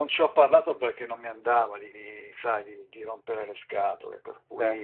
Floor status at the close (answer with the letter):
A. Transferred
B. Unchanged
B